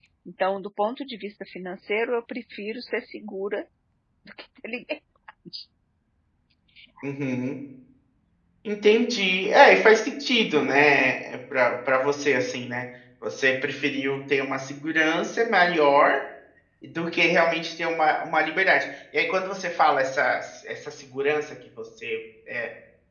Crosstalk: none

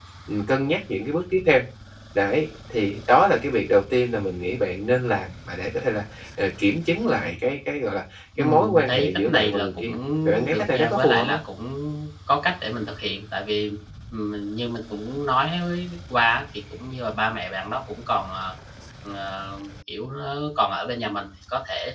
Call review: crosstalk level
present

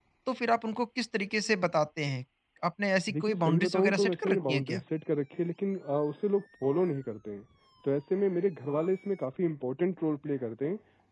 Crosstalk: present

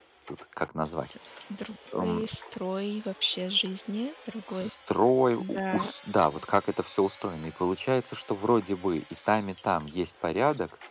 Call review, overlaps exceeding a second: none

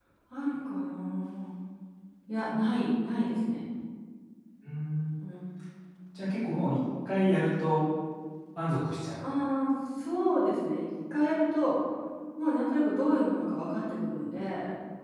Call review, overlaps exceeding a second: none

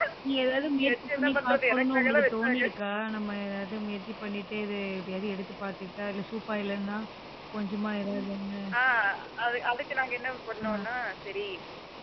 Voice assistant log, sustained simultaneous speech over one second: present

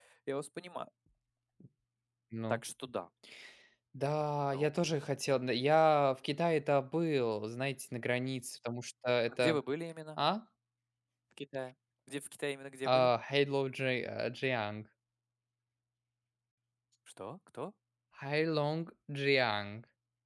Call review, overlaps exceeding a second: none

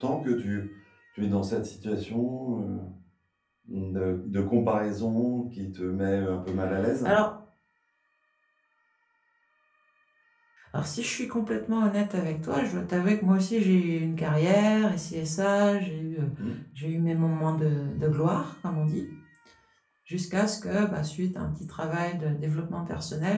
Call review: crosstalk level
none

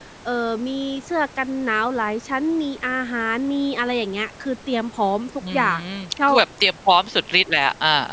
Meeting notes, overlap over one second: none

